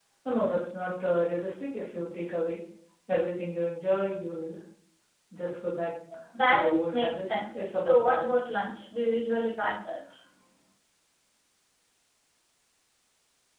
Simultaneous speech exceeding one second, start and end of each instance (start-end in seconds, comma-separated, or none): 6.5-8.6